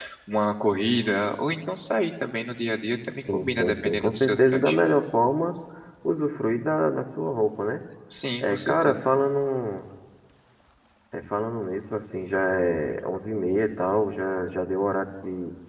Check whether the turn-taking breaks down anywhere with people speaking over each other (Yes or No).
Yes